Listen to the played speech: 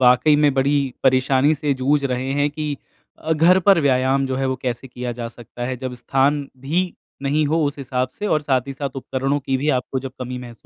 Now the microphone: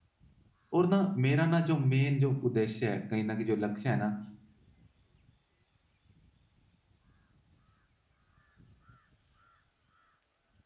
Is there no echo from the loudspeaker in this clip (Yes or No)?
Yes